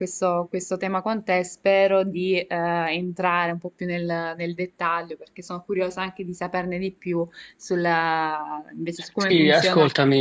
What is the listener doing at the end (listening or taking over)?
taking over